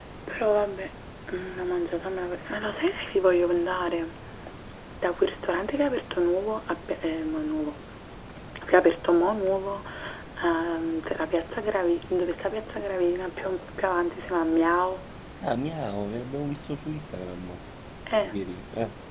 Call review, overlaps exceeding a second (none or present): none